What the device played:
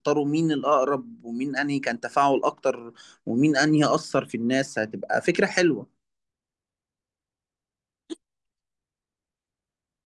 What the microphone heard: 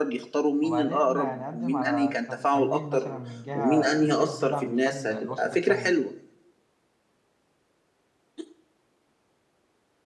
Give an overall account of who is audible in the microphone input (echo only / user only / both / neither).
both